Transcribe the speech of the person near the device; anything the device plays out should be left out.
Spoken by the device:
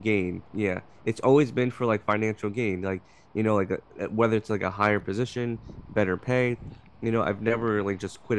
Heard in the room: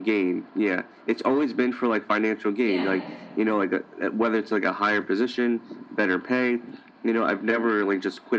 Yeah.

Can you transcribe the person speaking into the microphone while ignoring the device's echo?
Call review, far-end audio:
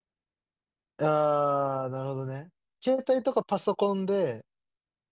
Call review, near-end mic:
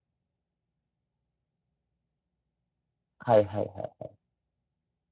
はいはいはい。

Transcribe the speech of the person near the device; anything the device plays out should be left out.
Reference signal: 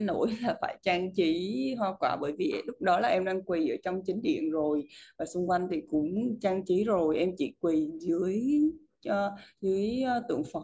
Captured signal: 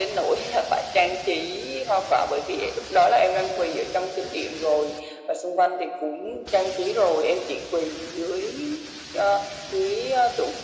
none

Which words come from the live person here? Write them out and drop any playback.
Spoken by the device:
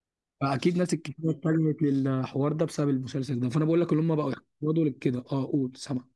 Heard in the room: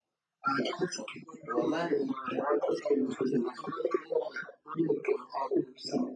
والله

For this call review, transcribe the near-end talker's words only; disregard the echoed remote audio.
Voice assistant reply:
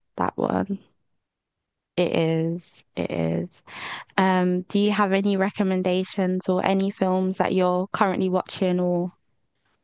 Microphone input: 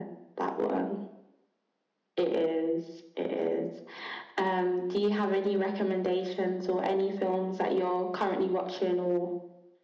none

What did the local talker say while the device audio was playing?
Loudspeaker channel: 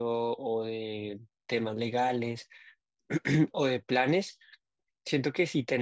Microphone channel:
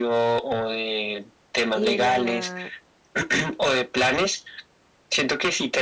y de la nada

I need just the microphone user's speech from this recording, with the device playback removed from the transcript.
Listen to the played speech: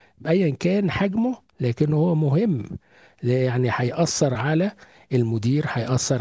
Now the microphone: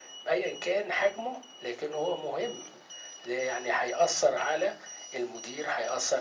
none

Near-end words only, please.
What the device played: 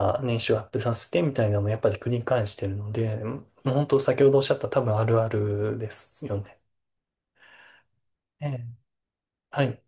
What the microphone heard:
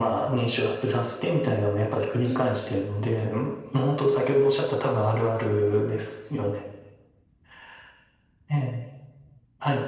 うん、い

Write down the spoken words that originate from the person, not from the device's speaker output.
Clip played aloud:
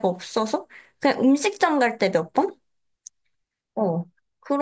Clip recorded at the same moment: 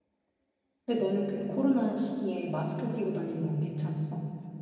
근데 너는 그 코로나 시기에 마스크 끼고 다니는 건 괜찮았어?

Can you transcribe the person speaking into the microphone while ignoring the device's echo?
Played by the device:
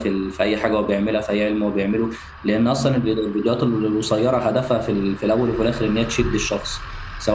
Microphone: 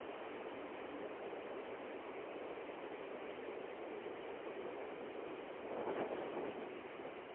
none

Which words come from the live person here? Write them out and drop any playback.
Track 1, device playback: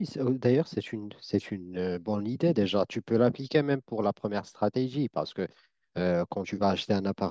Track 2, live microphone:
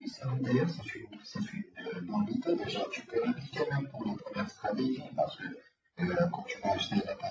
none

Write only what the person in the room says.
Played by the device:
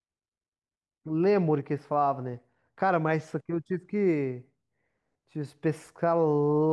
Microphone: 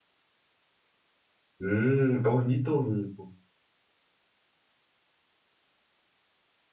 Hum, é ornitorrinco.

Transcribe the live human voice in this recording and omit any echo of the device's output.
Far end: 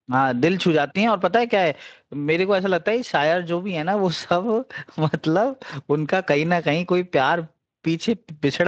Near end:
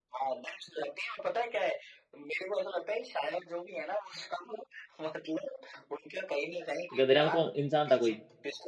गधेराम कौन इंसान था कोई

